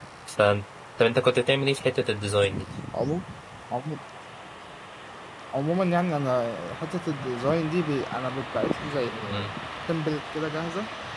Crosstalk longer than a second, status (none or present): none